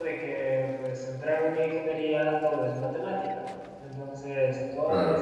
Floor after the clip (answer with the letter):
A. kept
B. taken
A